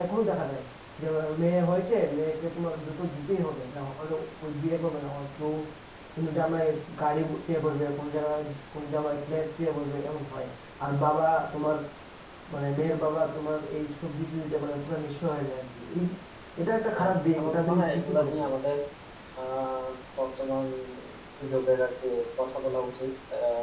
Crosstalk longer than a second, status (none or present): present